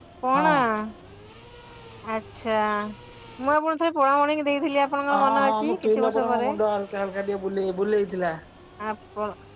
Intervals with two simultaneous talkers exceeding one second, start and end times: 5.2-6.5

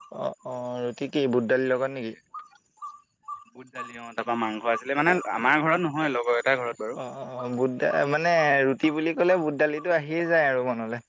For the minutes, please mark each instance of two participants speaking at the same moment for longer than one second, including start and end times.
none

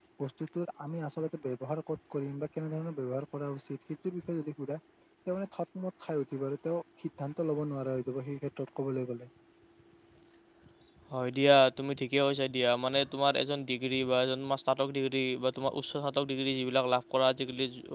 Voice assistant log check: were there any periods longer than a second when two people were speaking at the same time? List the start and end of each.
none

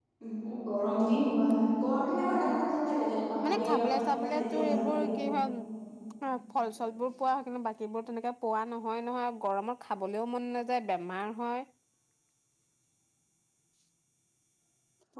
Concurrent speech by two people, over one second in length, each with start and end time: 3.5-5.1

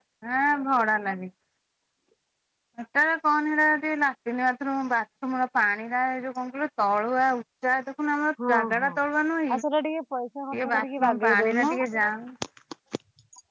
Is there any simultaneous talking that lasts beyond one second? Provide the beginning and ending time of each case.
10.5-11.7

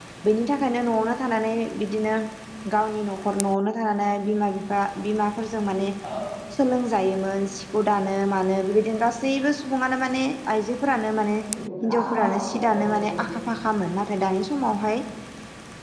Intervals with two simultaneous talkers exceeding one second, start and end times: 11.8-13.2

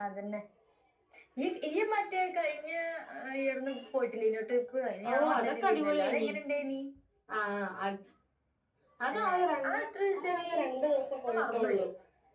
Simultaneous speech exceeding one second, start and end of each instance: 5.1-6.3

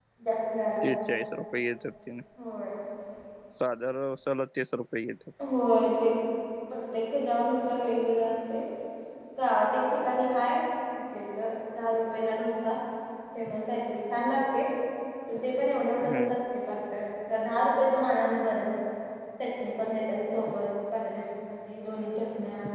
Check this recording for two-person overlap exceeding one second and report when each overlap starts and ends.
none

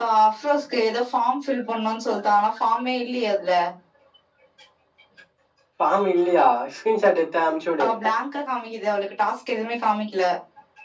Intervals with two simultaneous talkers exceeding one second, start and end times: none

